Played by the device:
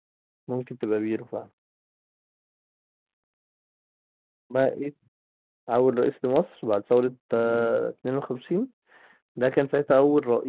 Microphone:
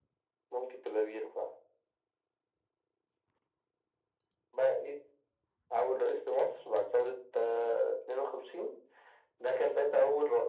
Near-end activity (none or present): none